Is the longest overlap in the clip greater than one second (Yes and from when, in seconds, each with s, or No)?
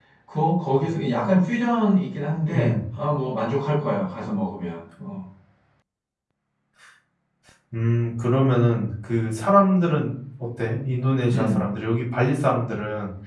No